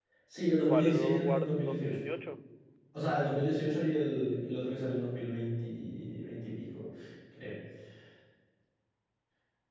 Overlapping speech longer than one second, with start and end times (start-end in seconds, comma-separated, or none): 0.7-2.0